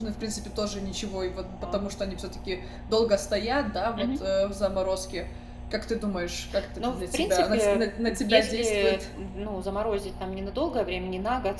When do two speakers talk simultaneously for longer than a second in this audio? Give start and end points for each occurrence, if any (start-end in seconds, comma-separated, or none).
6.8-9.0